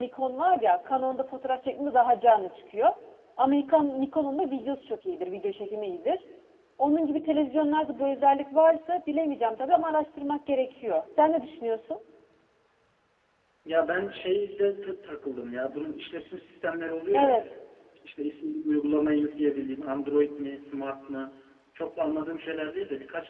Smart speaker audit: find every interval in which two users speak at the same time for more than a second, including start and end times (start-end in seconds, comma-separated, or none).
none